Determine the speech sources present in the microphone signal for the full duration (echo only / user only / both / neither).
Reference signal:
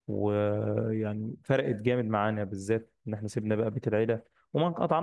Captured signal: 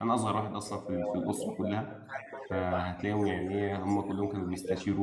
both